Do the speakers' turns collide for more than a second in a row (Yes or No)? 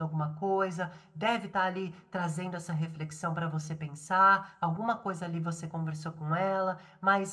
No